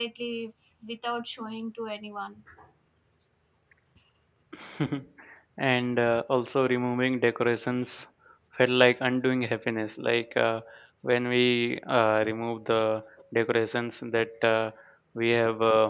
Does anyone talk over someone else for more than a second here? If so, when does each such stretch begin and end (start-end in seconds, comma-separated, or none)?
none